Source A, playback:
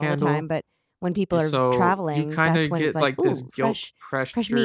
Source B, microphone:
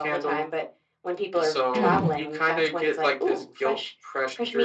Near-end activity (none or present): present